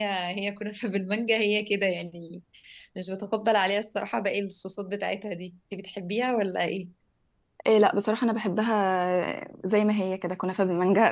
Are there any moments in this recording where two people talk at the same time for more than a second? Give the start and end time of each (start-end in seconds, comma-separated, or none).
none